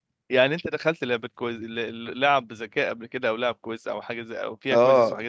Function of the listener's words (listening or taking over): taking over